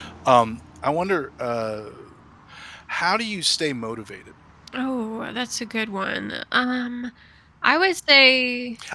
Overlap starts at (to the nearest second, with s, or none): none